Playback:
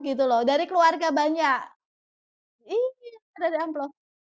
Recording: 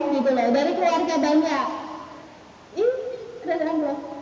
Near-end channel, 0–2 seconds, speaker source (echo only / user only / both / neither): echo only